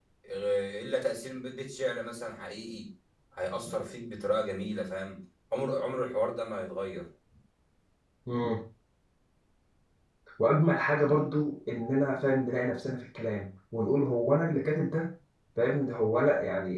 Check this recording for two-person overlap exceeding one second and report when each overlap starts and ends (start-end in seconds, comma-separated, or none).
none